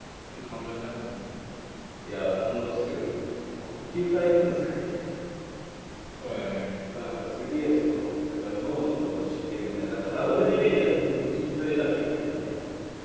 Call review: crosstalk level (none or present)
none